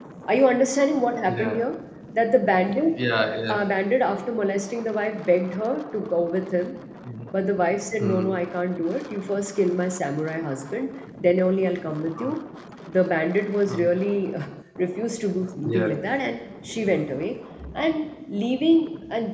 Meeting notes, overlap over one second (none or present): none